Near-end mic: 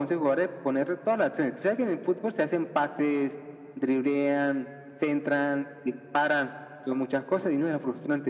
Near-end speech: none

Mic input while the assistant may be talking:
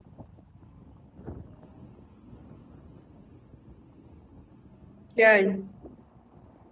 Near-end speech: present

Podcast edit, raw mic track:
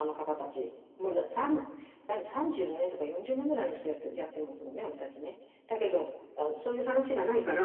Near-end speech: none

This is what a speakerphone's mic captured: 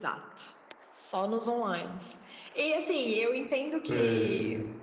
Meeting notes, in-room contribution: present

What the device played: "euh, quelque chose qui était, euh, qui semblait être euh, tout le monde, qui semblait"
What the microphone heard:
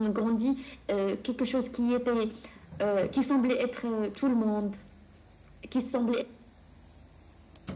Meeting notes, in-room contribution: none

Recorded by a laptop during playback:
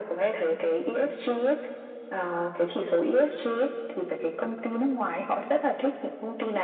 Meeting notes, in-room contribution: none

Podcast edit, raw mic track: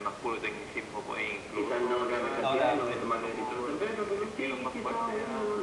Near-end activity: present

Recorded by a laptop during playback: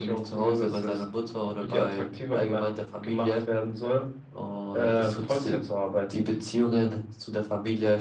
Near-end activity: none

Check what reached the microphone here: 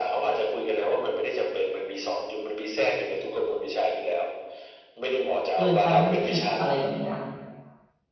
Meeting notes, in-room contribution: present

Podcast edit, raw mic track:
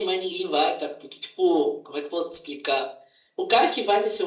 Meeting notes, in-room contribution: none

